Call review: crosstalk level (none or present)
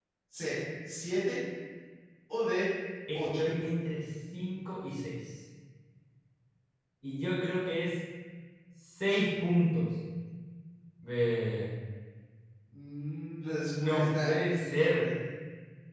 present